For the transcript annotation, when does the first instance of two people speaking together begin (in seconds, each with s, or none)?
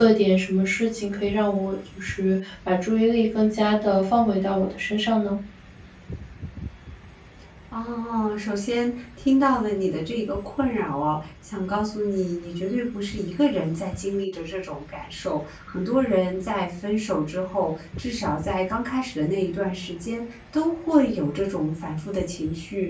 none